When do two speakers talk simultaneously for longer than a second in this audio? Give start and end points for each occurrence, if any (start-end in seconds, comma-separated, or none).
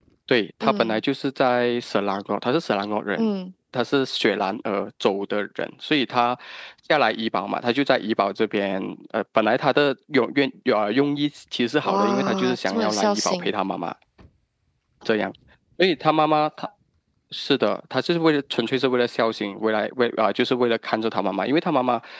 11.8-13.5